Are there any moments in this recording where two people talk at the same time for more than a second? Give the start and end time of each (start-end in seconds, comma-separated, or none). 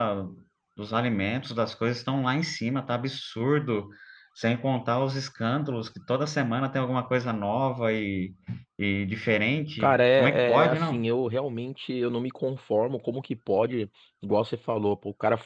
9.8-11.0